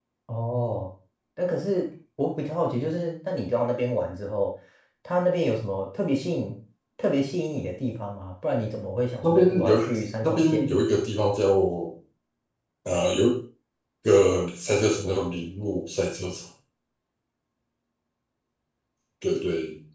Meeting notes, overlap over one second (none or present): present